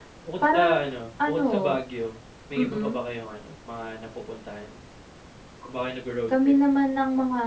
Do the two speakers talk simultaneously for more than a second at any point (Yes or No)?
No